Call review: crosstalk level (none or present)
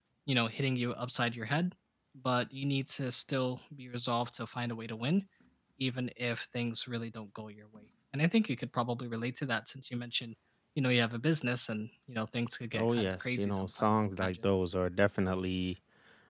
present